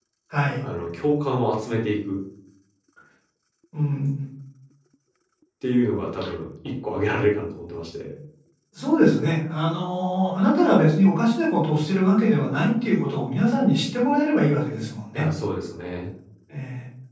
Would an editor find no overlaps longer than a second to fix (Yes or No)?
Yes